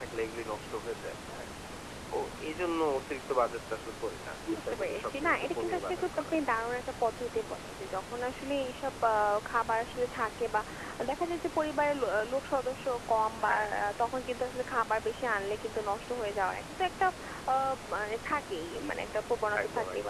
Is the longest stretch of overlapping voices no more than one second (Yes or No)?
No